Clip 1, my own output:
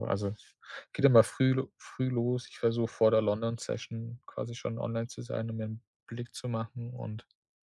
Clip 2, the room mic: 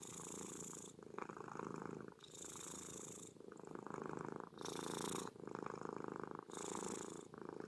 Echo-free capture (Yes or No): Yes